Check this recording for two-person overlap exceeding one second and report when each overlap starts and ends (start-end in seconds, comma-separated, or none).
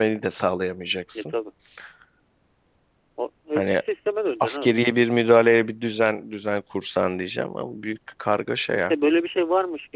none